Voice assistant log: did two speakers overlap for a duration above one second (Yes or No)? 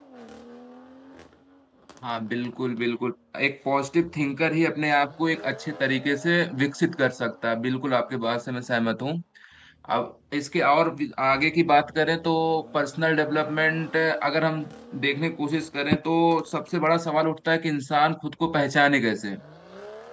No